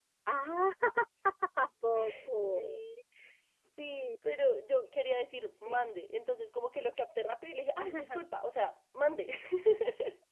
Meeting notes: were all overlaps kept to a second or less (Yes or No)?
Yes